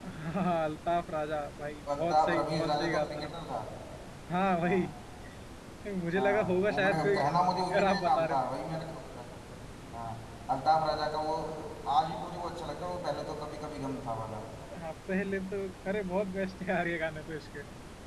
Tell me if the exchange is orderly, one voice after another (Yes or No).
No